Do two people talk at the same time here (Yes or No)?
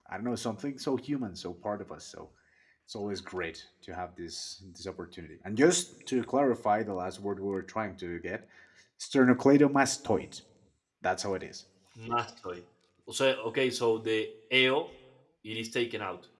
No